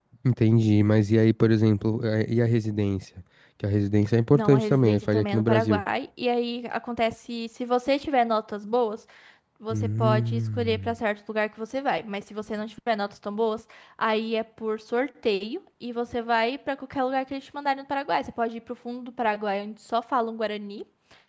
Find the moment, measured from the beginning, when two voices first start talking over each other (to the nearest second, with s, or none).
4 s